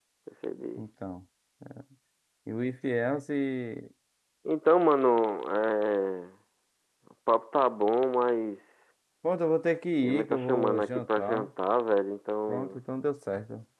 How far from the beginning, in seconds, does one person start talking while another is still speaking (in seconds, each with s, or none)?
10.0 s